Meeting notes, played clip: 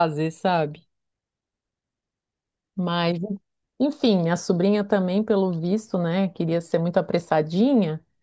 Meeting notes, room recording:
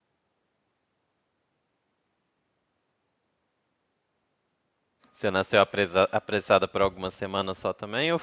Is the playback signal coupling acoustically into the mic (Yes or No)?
No